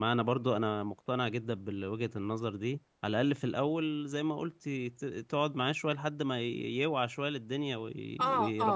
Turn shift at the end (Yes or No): Yes